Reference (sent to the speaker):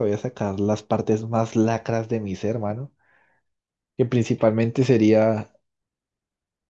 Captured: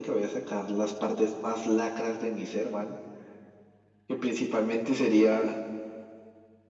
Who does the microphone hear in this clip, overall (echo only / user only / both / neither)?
echo only